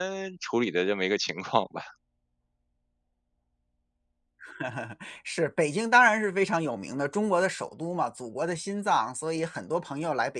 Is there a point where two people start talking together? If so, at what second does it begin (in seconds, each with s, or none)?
none